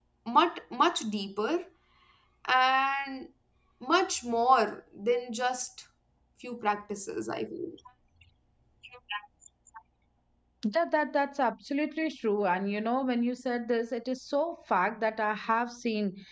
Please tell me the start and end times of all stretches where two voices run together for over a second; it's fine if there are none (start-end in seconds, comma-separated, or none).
none